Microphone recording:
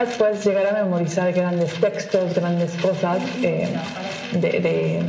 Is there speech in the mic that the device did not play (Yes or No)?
Yes